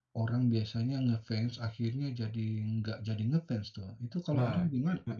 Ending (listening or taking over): taking over